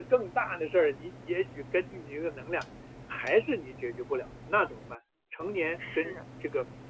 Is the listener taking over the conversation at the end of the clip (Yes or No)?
No